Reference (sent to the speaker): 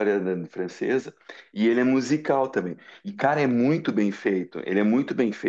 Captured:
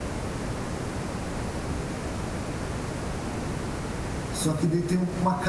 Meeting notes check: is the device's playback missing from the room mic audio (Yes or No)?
Yes